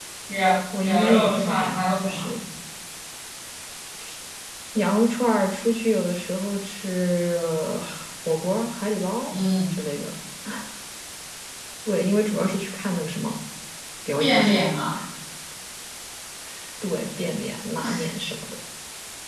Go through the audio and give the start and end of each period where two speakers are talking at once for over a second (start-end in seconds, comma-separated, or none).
0.8-2.3